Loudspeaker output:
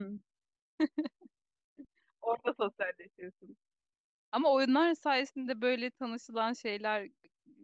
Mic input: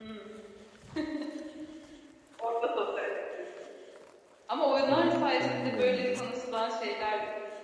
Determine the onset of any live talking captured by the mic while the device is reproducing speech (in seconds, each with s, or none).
4.8 s